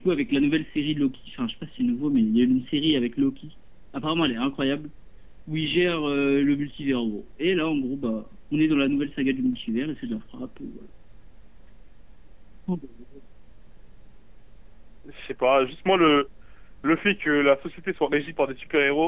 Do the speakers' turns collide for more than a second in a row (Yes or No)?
No